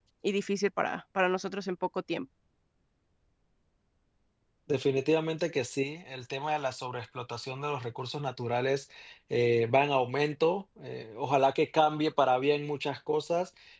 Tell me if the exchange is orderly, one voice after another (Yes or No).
Yes